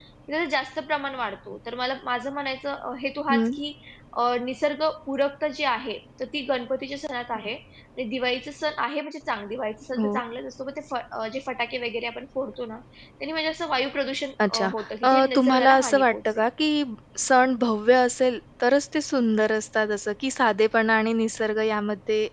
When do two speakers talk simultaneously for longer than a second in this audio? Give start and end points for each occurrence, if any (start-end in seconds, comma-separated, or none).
15.1-16.4